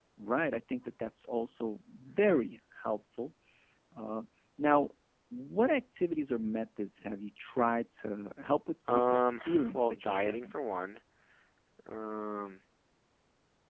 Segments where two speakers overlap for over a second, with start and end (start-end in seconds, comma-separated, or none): 8.9-10.6